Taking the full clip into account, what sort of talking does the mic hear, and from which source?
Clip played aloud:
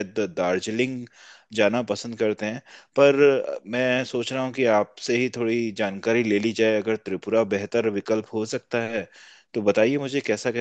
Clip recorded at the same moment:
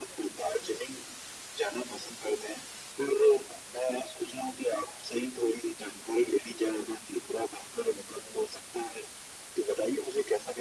echo only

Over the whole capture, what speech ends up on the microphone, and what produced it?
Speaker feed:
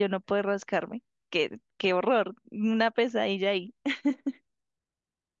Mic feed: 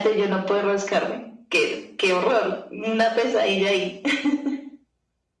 echo only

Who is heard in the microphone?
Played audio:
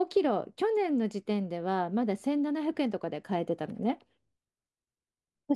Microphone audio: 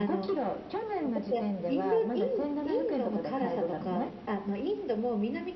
both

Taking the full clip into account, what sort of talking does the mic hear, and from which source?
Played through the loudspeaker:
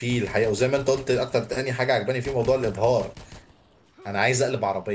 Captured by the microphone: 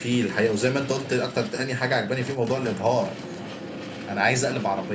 echo only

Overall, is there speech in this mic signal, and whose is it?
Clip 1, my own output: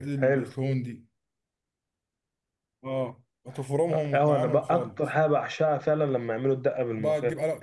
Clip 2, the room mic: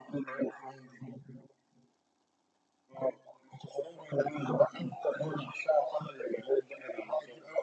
echo only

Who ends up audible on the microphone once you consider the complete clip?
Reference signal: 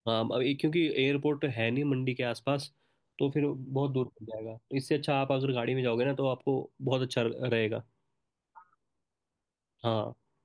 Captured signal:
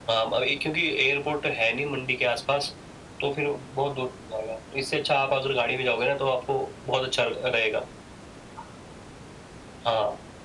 echo only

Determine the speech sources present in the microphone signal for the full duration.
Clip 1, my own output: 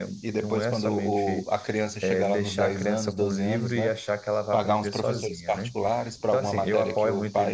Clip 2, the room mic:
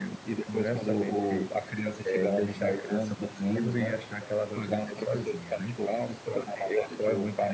echo only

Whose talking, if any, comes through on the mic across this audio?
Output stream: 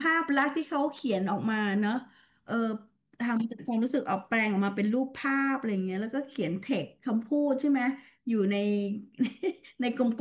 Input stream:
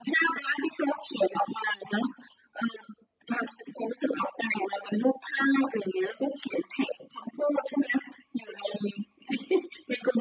echo only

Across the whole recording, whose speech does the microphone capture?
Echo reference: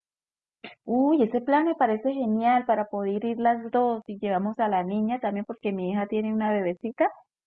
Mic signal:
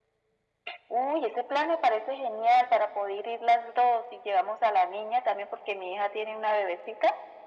echo only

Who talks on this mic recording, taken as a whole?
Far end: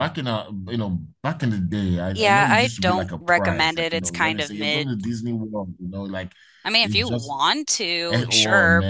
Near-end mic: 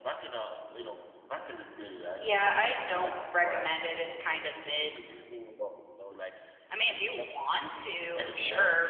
echo only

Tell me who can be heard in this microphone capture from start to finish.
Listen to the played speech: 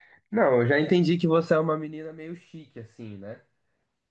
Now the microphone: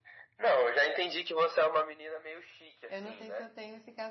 both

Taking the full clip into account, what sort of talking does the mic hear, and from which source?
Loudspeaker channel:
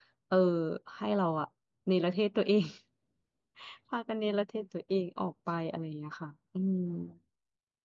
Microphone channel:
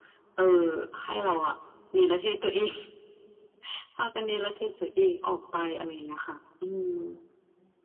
echo only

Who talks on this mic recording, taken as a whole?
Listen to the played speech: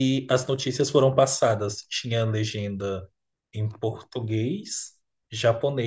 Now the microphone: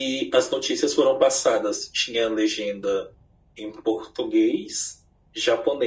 echo only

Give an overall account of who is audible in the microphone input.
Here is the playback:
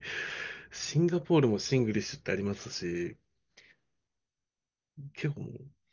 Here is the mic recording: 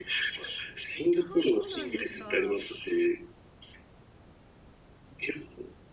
both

